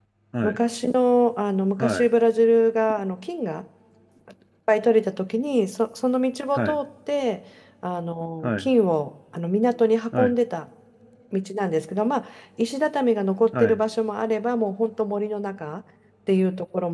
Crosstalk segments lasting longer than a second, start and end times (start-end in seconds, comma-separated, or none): none